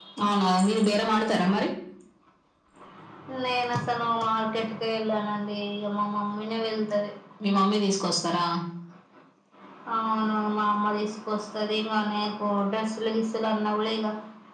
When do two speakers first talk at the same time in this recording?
none

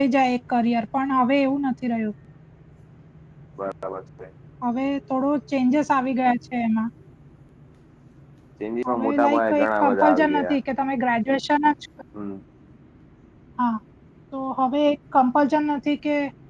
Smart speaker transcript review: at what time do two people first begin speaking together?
9 s

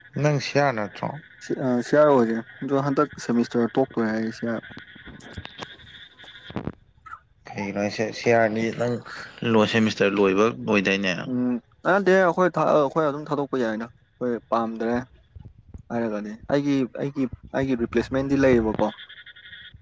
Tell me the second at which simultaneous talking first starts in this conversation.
none

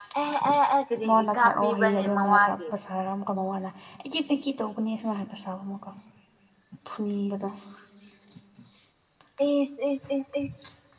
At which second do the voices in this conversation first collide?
1 s

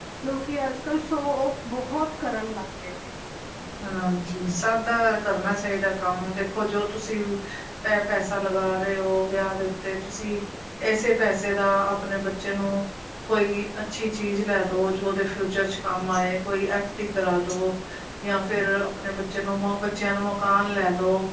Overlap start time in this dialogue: none

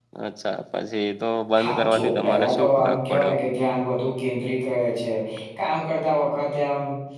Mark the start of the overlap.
2 s

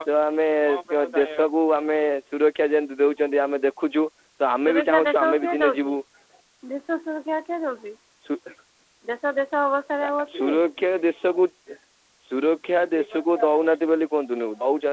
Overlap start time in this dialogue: 5 s

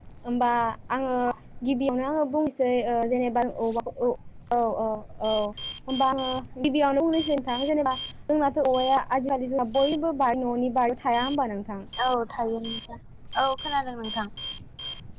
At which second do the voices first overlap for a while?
none

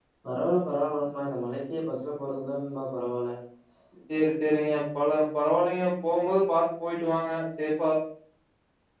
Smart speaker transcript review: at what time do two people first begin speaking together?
none

